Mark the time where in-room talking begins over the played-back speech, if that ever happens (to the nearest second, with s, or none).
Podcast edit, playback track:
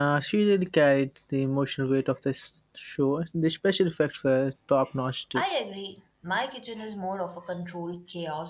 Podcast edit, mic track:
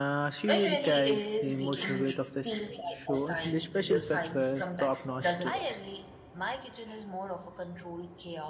0 s